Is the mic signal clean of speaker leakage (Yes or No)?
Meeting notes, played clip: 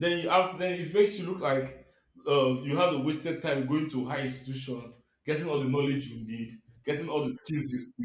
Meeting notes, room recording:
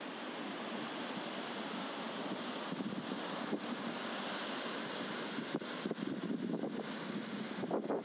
Yes